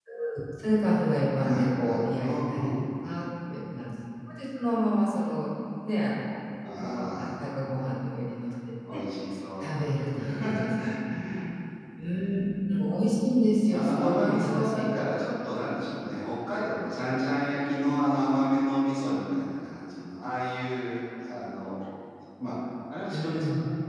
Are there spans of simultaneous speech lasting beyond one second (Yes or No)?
Yes